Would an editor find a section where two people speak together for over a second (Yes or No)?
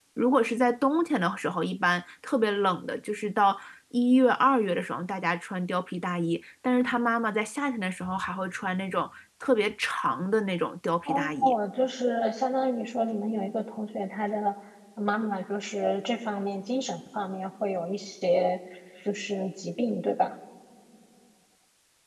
No